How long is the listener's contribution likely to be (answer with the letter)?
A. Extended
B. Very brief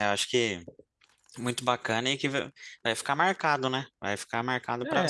A